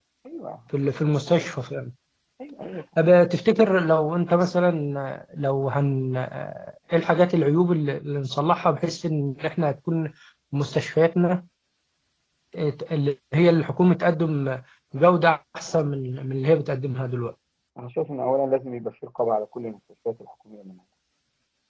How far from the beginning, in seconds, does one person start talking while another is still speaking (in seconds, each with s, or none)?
none